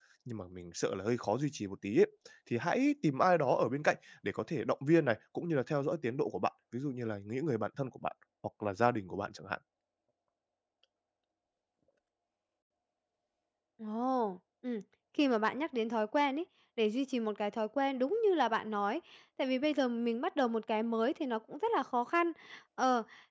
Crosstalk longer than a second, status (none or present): none